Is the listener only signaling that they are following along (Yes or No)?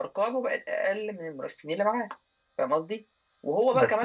Yes